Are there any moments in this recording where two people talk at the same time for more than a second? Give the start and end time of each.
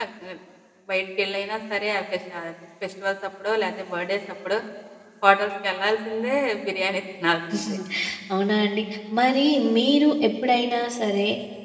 none

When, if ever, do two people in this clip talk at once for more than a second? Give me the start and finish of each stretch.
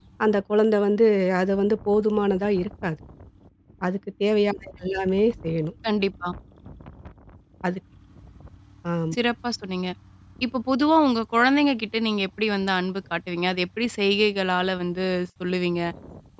none

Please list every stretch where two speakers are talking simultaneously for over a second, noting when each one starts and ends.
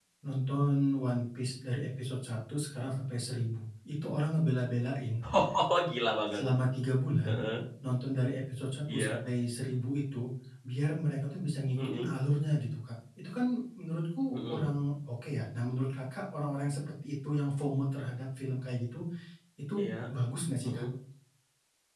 none

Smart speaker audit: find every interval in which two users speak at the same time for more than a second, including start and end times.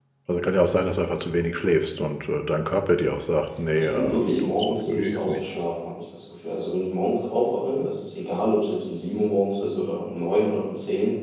3.9-5.5

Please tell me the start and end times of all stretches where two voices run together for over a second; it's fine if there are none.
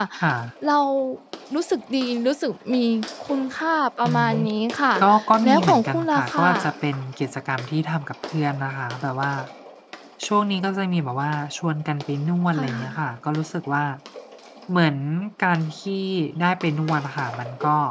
5.4-6.7

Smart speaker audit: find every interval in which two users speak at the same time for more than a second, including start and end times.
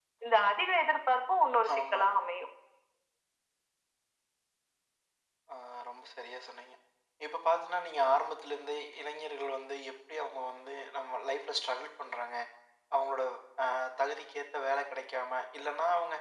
none

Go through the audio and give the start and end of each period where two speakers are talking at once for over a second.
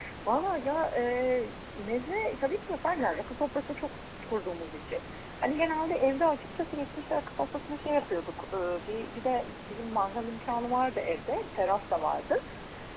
none

